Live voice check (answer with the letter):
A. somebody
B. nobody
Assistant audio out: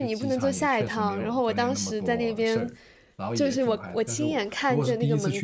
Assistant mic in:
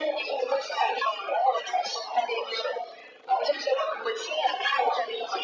B